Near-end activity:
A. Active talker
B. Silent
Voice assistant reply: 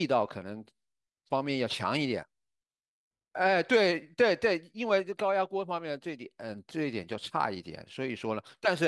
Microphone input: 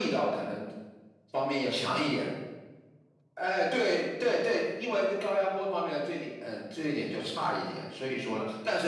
B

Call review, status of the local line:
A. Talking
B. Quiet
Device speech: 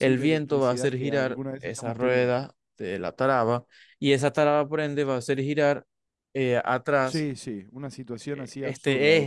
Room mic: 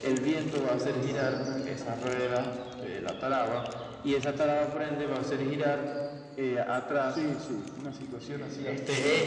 B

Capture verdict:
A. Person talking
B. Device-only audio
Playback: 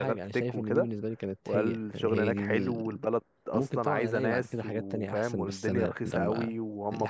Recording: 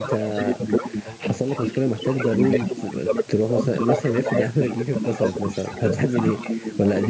A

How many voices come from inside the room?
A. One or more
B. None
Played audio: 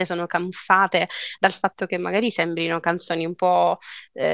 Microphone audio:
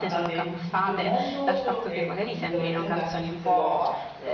A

